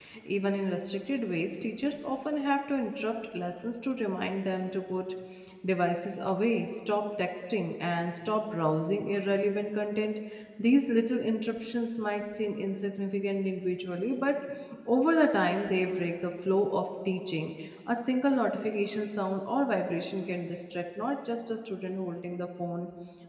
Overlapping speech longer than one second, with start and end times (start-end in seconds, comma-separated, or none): none